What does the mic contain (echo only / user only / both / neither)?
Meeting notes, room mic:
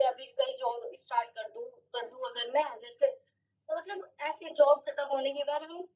echo only